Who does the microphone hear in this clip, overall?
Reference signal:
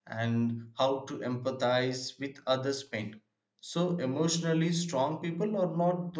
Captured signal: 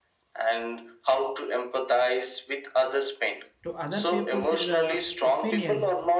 both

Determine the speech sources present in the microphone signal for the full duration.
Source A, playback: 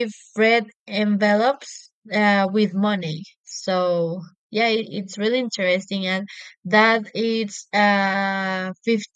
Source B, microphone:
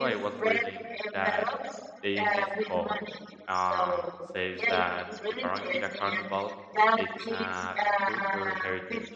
both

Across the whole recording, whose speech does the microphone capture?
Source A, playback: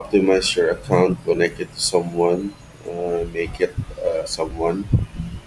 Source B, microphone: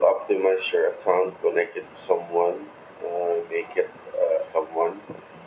echo only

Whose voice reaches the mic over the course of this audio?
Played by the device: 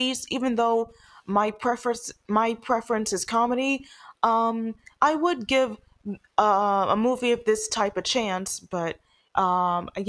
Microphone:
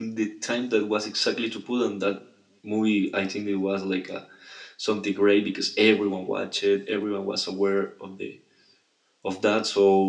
user only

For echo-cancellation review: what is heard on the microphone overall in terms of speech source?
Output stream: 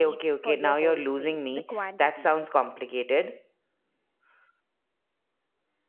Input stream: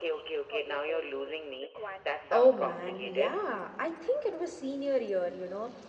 both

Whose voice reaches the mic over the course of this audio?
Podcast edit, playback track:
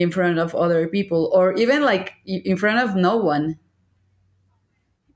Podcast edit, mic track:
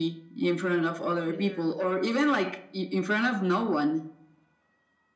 both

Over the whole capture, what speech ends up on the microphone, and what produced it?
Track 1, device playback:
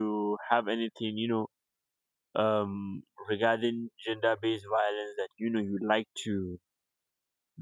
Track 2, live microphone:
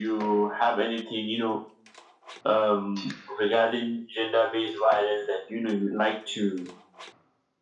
echo only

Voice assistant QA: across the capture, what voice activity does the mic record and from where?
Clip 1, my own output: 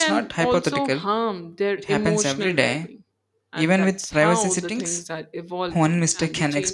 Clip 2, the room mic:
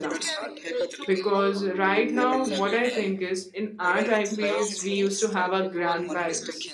both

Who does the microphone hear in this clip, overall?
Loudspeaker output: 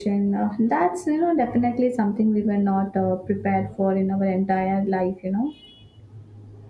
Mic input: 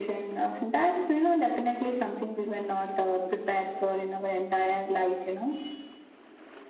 echo only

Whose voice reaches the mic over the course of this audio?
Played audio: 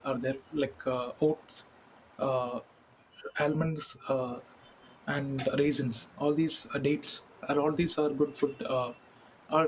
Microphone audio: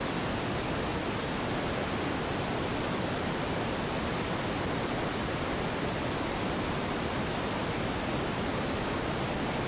neither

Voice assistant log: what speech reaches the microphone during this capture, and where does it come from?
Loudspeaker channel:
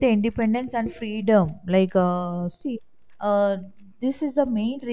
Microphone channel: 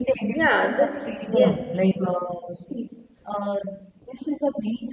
both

